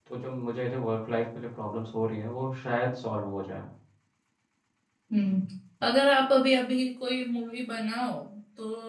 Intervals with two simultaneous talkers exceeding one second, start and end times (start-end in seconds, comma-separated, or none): none